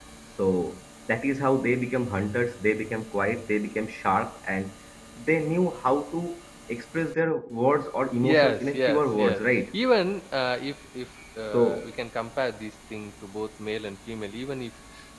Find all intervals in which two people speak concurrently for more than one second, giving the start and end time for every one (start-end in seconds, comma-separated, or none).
8.2-9.6